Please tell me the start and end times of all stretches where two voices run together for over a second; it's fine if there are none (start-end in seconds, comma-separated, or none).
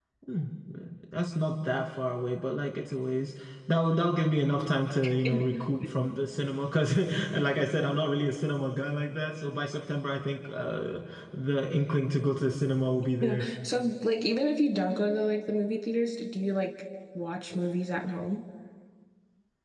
none